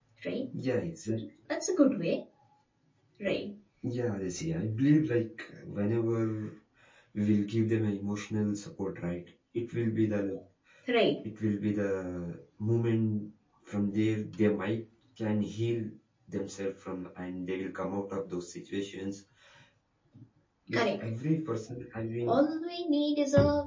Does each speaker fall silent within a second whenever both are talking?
Yes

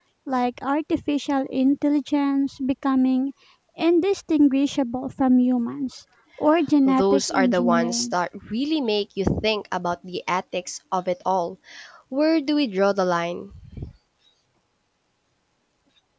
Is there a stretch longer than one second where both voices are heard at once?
Yes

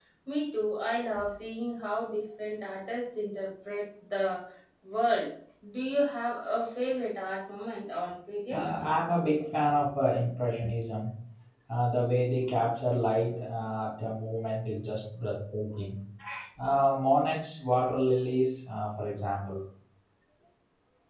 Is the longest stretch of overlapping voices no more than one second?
Yes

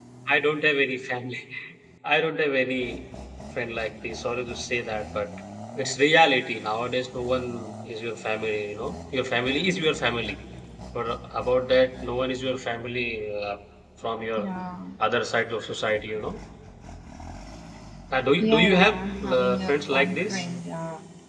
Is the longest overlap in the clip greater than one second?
Yes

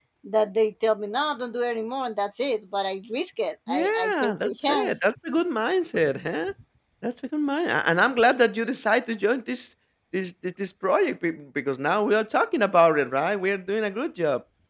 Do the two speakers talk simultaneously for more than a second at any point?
Yes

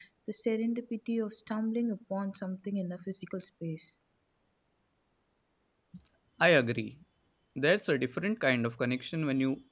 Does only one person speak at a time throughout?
Yes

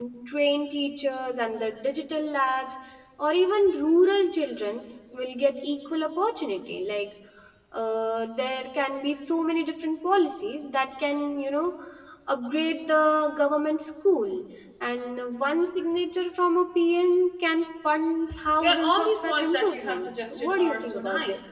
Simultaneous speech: Yes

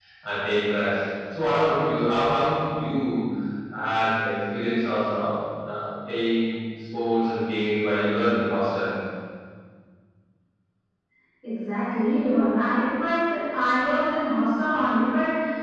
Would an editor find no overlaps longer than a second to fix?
Yes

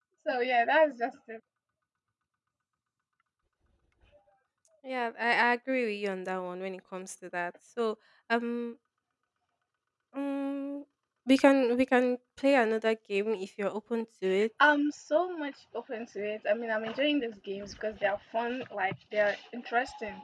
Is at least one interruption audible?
No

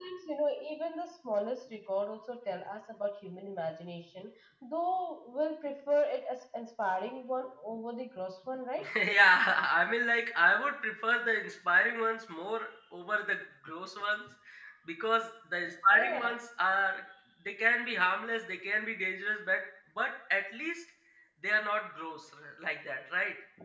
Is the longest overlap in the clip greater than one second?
No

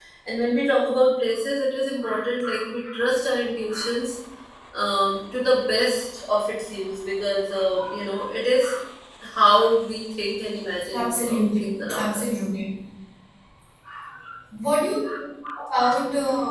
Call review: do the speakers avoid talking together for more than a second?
No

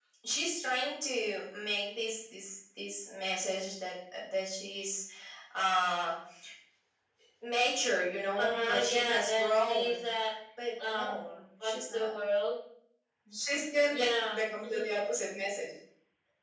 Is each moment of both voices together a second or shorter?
No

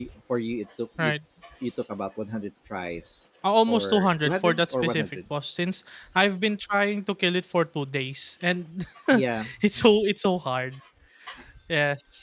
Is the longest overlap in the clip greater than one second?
Yes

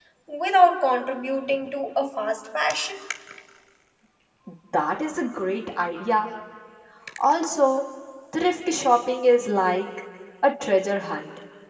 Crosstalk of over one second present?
No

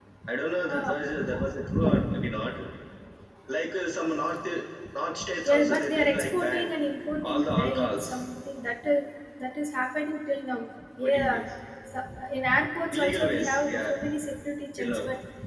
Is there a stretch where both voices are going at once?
Yes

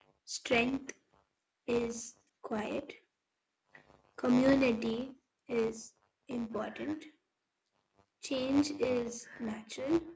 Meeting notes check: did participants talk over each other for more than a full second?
No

